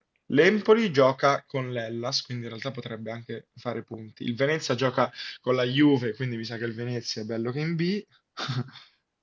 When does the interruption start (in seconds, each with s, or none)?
none